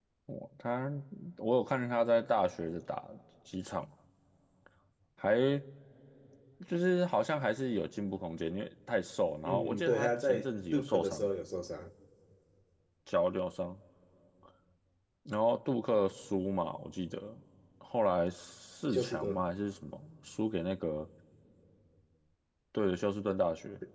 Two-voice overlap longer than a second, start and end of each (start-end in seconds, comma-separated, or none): 9.4-11.3